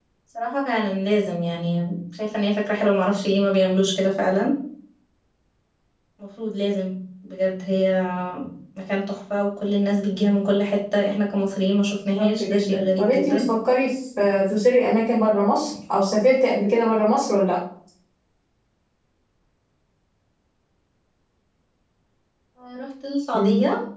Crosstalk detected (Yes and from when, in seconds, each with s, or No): Yes, from 12.0 s